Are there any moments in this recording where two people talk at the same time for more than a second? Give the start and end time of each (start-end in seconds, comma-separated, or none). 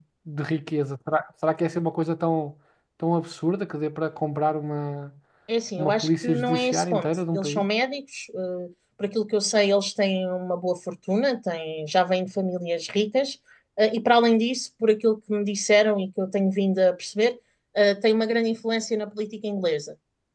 5.8-7.7